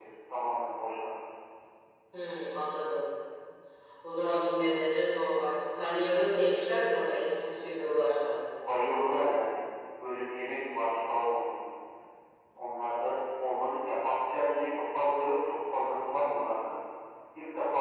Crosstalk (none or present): none